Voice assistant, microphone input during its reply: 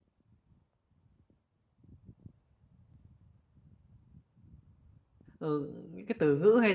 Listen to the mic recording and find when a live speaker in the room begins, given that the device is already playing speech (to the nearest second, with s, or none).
5 s